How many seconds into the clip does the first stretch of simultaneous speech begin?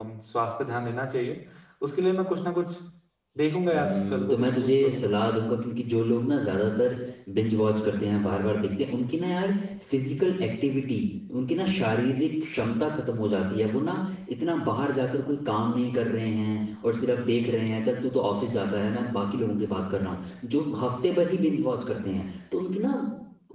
4 s

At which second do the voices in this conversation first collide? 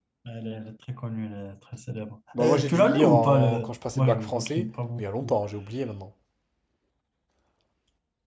2 s

